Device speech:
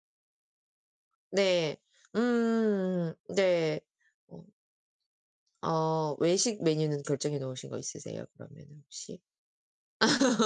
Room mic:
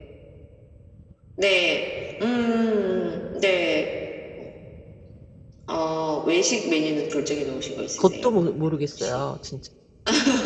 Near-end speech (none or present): present